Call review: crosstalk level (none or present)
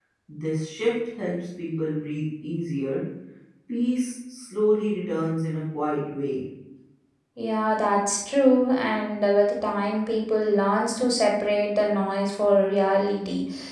none